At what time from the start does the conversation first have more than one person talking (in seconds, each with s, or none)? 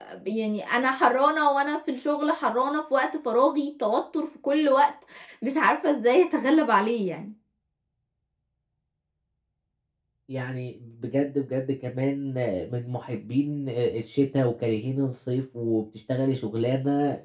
none